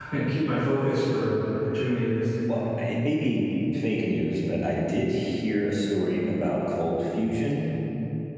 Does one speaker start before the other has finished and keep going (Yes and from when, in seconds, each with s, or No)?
No